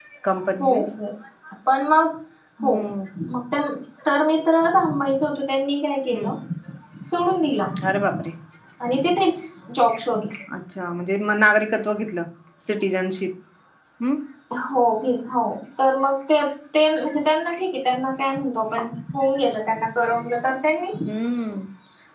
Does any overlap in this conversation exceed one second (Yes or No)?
No